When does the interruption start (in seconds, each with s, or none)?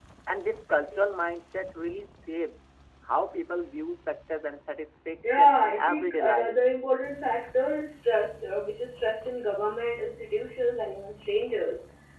5.2 s